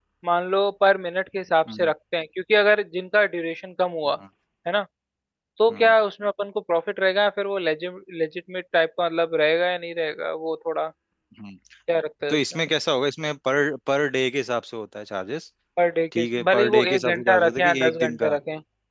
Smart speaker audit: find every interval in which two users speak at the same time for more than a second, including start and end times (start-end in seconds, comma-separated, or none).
16.2-18.3